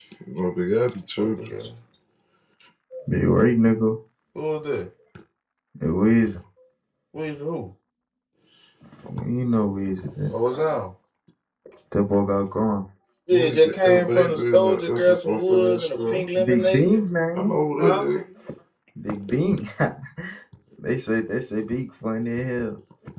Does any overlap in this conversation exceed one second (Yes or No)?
Yes